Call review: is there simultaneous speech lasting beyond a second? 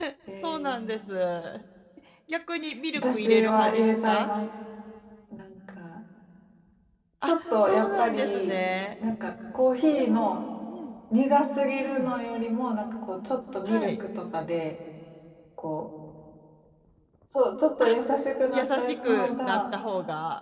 Yes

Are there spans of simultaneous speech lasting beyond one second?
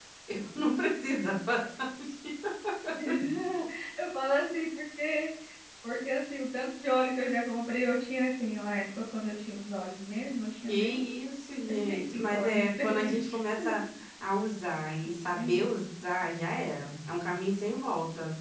Yes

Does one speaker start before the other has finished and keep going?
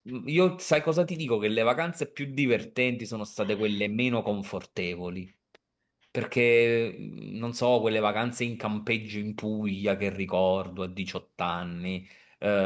No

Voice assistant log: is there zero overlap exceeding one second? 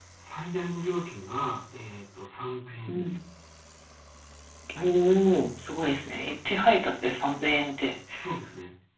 Yes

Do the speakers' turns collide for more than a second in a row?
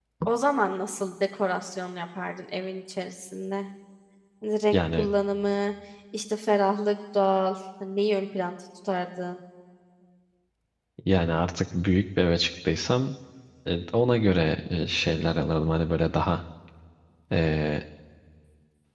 No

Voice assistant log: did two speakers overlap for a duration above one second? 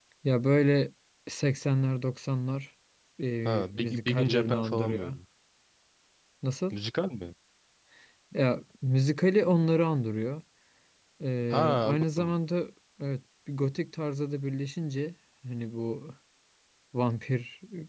Yes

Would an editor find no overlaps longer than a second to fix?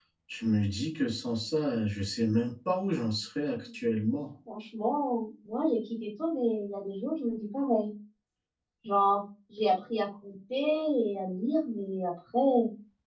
Yes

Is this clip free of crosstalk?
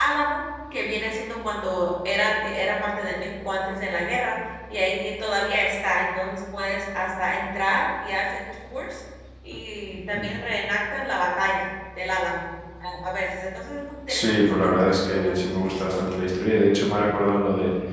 No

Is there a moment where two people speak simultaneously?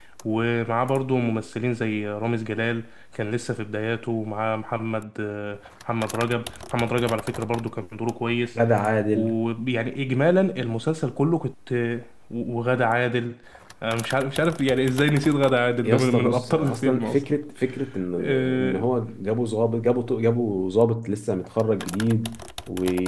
Yes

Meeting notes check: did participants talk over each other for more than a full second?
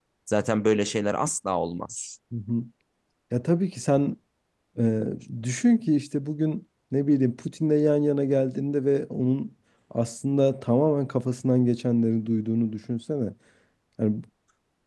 No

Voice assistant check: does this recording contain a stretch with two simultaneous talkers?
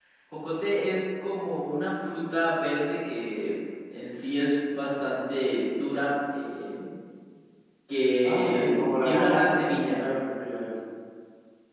Yes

